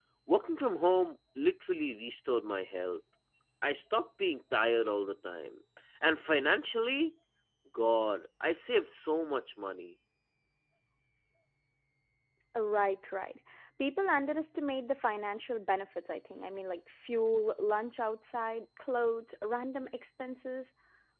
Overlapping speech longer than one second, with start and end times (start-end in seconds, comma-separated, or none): none